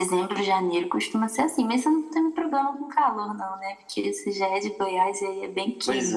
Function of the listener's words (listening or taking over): taking over